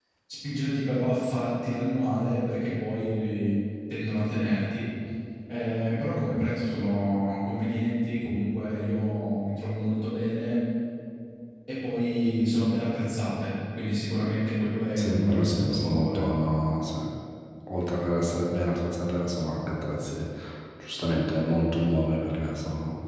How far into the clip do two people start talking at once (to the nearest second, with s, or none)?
15 s